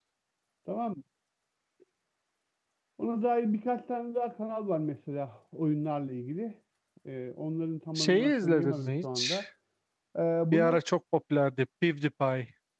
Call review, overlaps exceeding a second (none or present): present